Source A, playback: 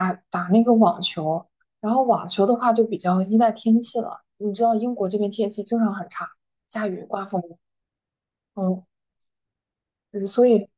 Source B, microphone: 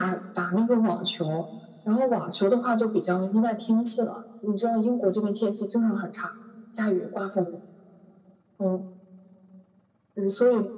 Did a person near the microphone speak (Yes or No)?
No